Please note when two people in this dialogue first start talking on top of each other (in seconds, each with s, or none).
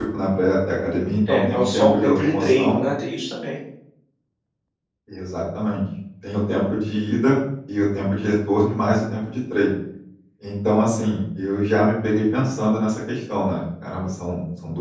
1.3 s